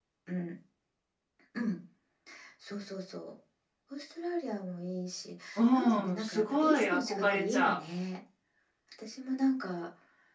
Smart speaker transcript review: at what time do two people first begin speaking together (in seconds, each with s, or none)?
5.6 s